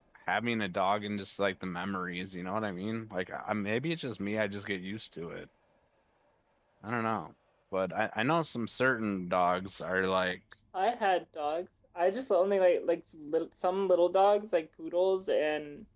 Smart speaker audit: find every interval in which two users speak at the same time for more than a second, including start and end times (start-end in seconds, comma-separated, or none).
none